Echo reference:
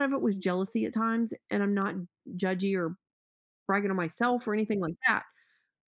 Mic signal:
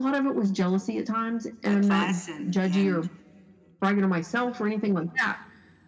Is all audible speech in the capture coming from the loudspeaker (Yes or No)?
No